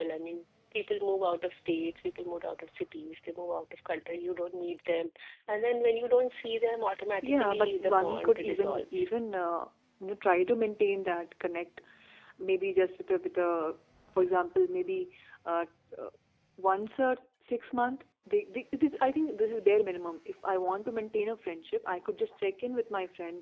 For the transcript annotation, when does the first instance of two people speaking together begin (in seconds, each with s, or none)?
7.2 s